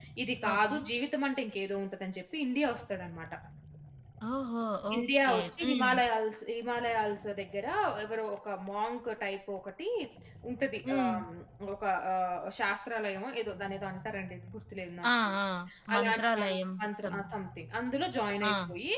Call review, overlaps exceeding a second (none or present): present